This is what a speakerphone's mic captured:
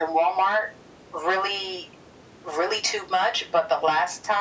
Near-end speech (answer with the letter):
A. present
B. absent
B